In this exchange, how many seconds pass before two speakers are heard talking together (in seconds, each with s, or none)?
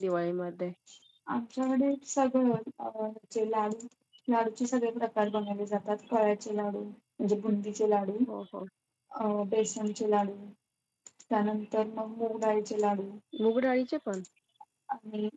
none